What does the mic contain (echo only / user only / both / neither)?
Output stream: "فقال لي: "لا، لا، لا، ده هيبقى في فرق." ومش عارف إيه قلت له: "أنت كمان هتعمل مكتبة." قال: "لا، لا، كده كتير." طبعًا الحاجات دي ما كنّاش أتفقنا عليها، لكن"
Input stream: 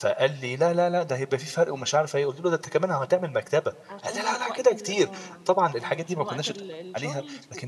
both